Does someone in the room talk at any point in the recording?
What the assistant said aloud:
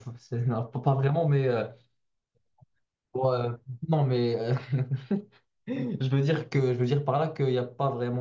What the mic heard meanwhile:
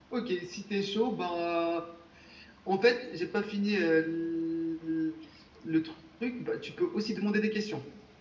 Yes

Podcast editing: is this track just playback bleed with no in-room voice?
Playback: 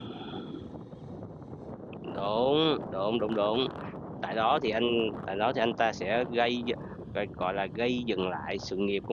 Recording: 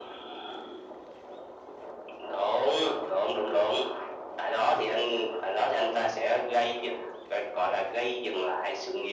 Yes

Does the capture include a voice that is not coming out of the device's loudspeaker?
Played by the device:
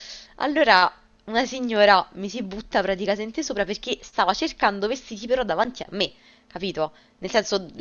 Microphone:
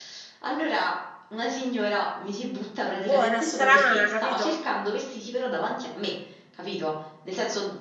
Yes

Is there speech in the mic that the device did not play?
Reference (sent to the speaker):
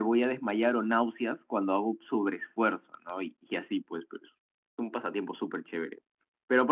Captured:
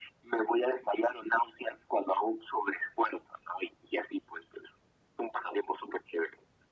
No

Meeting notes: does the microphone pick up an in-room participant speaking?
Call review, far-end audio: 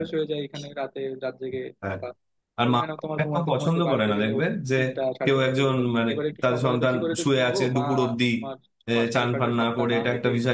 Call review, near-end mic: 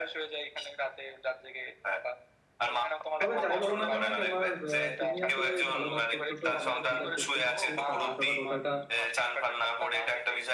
Yes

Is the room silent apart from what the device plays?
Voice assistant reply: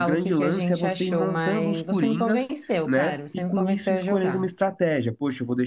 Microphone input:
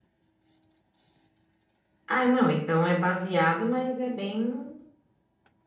No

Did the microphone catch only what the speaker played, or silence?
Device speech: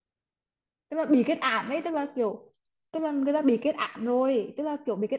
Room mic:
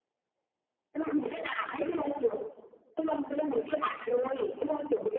Yes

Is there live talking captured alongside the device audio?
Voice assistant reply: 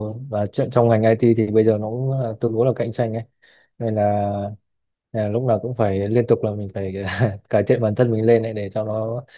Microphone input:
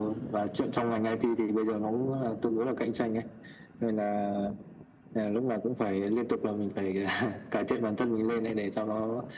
No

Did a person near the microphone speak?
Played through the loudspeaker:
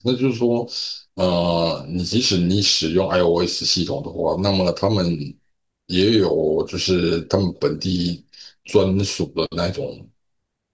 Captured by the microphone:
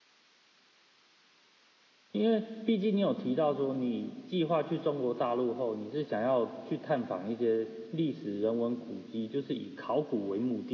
Yes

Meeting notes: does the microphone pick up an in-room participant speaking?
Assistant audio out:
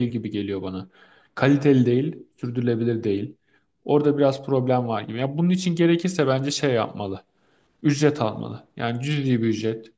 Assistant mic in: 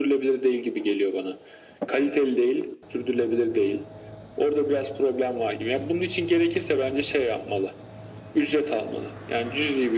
No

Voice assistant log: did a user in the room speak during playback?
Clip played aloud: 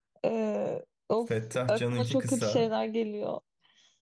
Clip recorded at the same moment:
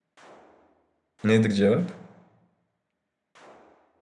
Yes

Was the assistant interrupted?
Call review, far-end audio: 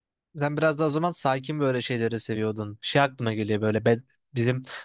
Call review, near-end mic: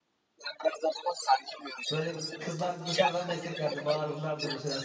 Yes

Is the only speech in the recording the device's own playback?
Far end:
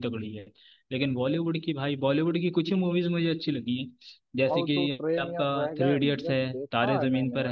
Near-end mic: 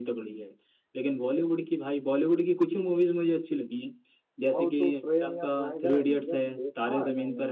Yes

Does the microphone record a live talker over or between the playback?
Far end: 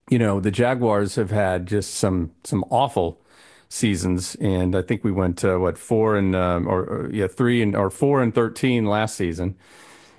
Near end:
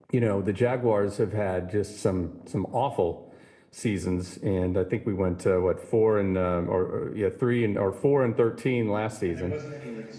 Yes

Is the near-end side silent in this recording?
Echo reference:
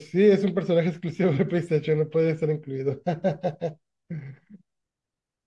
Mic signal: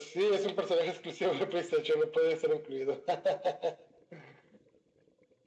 Yes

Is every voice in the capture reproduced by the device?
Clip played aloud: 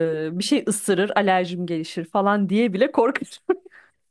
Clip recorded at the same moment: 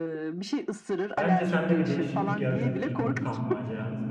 No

